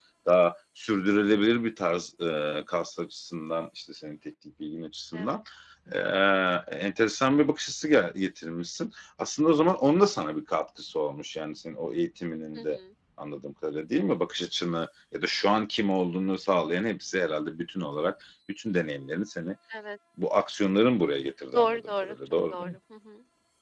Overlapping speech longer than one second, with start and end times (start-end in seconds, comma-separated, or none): 21.5-22.8